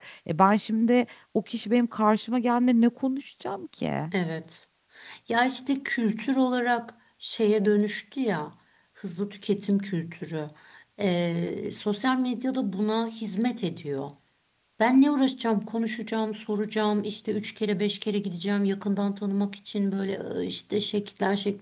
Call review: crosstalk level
none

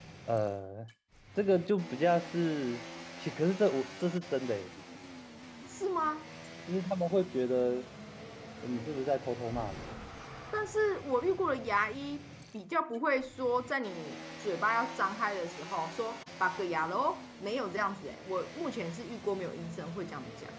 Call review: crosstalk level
none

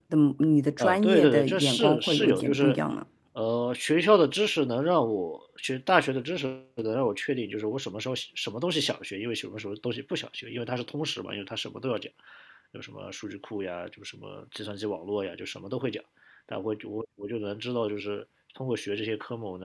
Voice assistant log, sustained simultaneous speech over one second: present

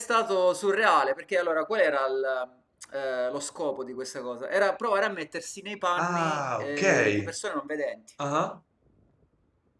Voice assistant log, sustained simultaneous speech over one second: present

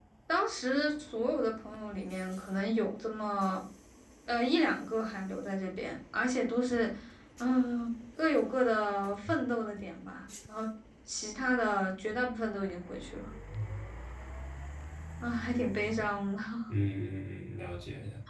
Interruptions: none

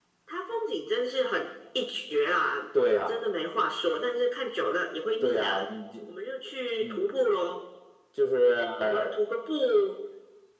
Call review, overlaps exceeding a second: none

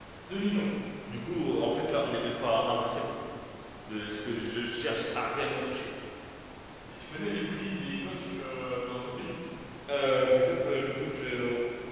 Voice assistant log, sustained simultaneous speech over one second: none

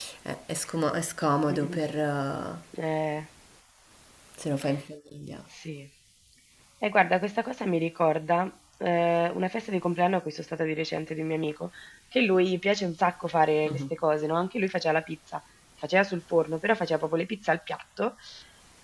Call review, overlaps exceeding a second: none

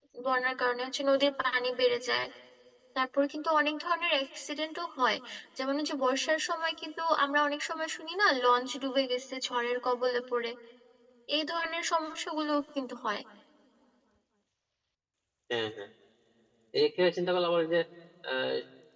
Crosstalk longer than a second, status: none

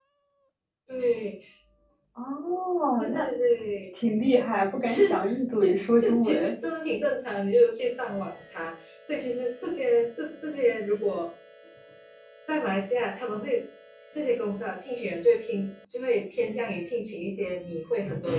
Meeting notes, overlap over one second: present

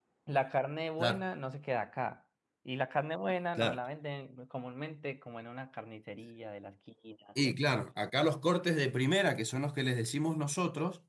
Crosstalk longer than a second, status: none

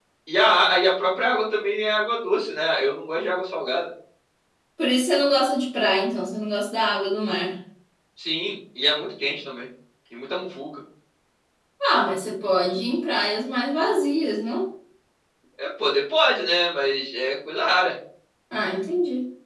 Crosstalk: none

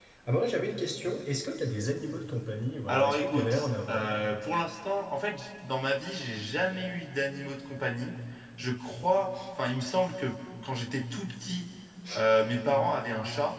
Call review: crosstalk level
present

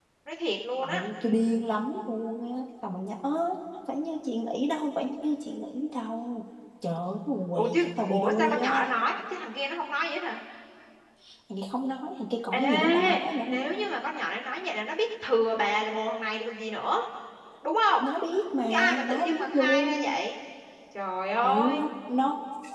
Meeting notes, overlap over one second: present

